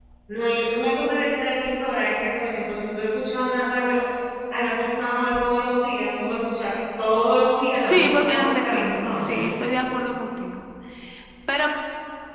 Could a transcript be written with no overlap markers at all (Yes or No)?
No